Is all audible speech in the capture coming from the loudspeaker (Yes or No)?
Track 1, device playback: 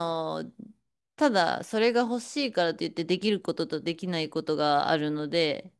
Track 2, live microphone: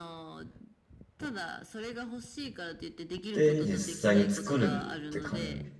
No